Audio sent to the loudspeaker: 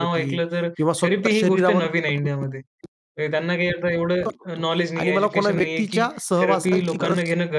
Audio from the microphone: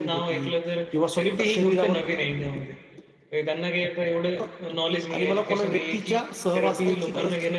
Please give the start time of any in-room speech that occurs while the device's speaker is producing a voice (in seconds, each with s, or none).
none